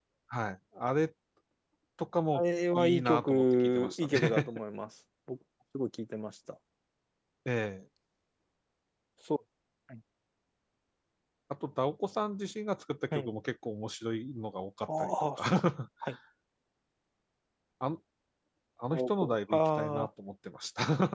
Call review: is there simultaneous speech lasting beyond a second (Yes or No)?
Yes